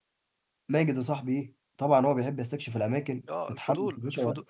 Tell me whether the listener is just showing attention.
No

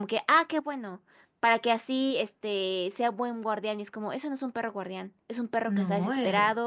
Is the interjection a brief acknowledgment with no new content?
Yes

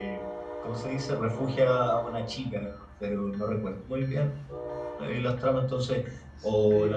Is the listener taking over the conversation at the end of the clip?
No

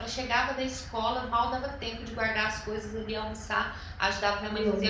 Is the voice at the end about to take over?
No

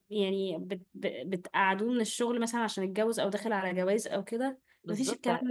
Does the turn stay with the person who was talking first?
No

